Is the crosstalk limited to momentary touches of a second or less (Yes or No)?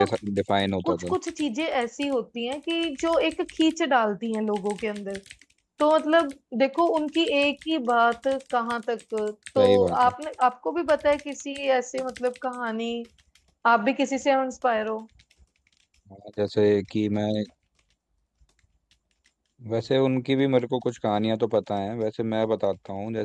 Yes